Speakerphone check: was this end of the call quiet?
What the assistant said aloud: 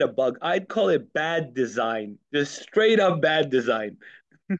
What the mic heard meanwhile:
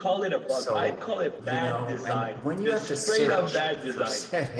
No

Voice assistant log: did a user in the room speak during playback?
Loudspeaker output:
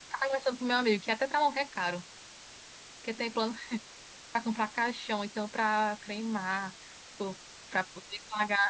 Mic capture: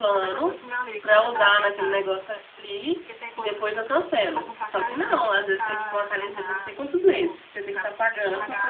Yes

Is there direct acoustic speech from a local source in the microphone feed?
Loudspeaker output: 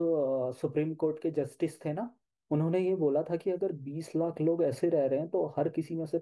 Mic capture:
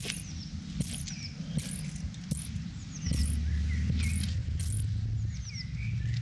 No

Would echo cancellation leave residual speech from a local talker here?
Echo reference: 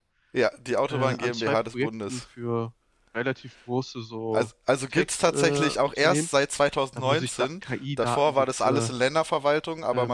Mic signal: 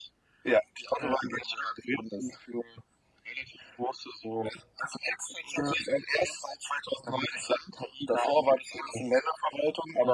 No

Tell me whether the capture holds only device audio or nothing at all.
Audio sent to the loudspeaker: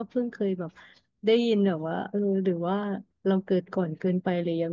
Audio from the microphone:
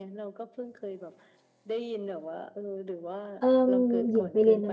No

